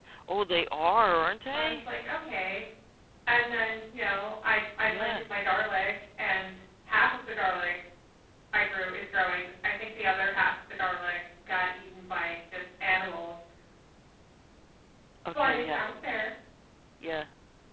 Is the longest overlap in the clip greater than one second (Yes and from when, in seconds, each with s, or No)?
No